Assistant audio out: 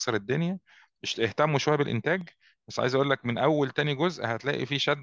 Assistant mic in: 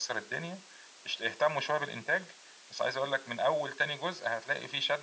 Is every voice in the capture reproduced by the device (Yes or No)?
Yes